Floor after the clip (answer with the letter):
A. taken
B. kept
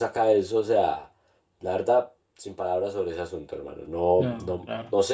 B